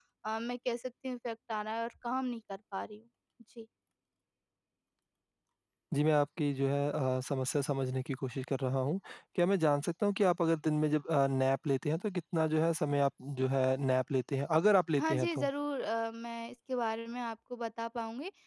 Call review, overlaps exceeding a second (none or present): none